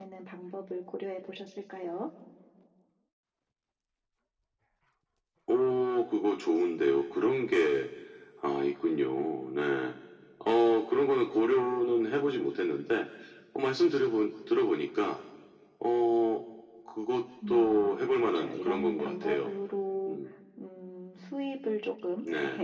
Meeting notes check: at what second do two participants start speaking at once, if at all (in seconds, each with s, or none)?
17.5 s